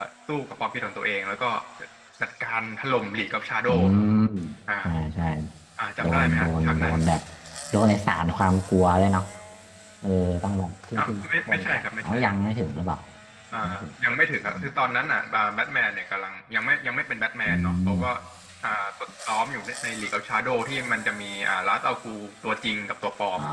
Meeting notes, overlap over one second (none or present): present